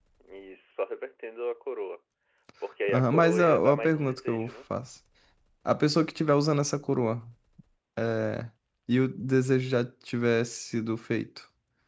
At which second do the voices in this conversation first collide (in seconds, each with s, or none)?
2.9 s